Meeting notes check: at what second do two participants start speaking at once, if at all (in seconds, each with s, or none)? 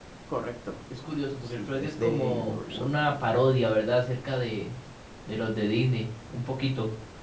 1.6 s